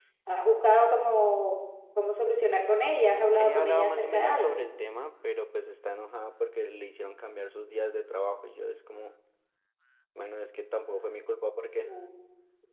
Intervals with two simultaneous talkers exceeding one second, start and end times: 3.4-4.6

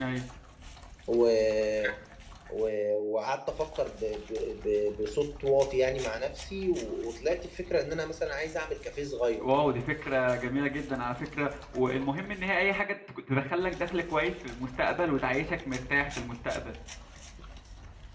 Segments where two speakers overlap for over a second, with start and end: none

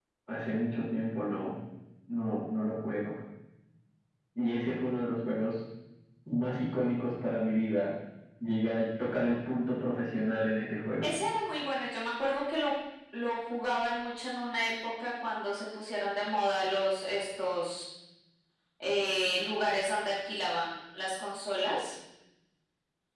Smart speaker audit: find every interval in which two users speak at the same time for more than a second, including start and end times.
none

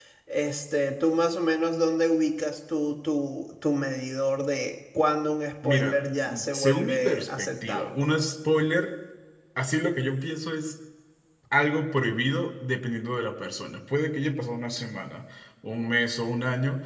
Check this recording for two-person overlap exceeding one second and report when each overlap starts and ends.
6.5-8.0

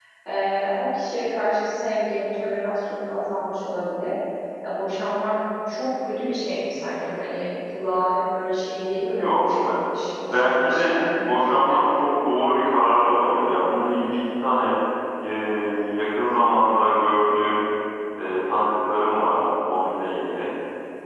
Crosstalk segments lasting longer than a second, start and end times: 10.3-11.8

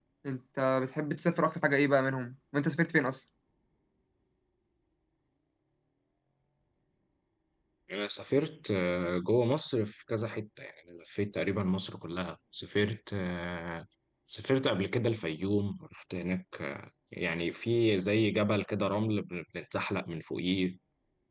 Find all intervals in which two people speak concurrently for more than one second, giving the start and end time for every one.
none

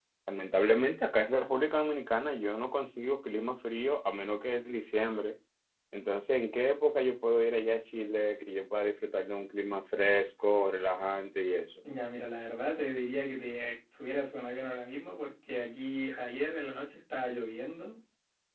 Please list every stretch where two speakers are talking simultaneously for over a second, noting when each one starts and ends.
none

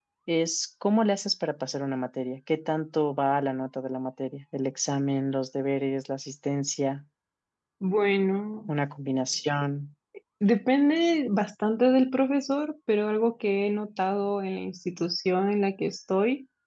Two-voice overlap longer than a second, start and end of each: none

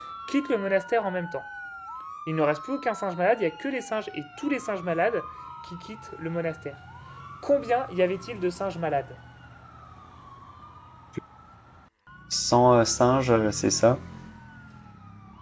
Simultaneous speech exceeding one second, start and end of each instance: none

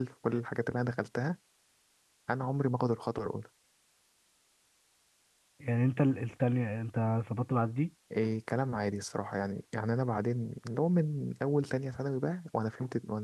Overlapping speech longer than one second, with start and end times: none

